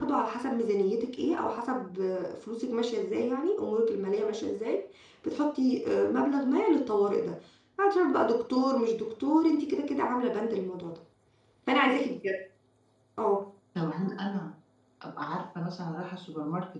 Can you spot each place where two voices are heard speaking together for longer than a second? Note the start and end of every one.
none

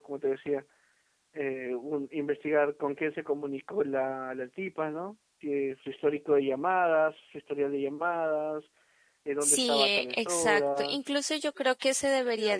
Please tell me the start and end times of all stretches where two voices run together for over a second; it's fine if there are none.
9.4-11.0

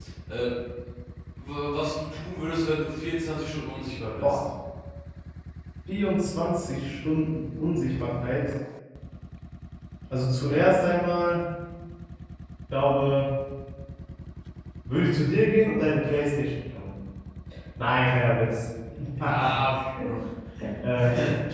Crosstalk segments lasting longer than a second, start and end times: none

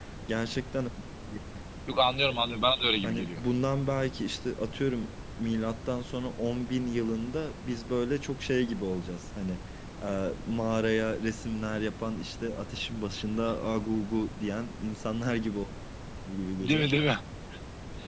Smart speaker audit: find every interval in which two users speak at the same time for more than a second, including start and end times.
none

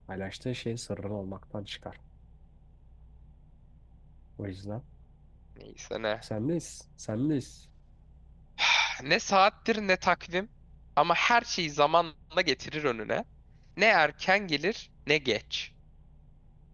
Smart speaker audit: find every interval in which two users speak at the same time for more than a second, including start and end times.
none

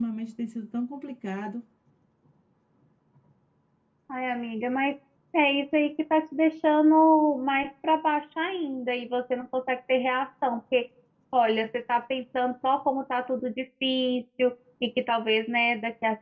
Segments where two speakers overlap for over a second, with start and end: none

